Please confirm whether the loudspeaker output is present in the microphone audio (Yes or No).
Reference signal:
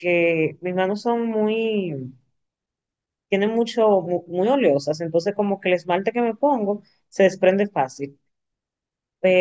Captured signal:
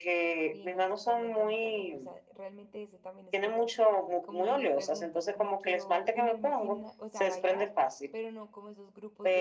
Yes